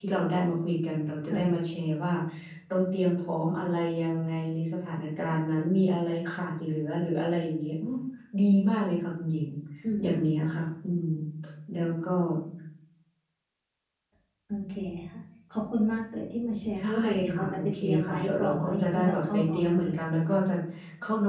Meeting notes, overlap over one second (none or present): present